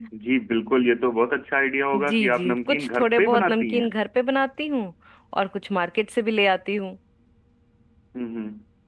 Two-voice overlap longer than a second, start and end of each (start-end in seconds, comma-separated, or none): 1.9-3.9